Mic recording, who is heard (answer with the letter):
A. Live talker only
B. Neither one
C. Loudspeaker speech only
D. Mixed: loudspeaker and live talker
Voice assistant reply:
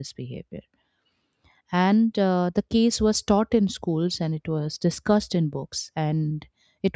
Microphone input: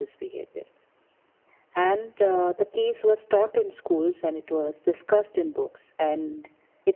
C